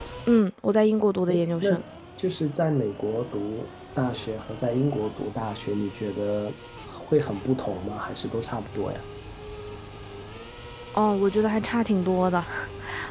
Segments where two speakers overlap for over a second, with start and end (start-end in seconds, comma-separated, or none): none